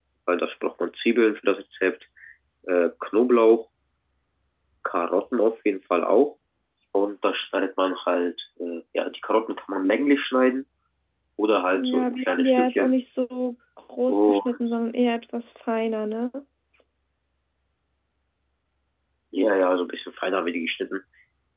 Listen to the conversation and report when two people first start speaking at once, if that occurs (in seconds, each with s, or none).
11.7 s